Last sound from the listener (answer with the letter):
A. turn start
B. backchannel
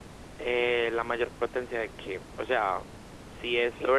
B